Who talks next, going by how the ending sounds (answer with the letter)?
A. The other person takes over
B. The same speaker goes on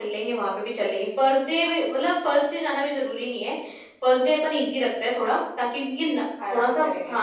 B